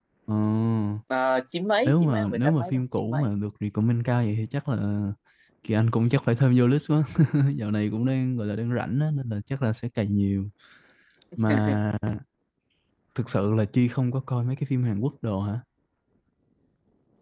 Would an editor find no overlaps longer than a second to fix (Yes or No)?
No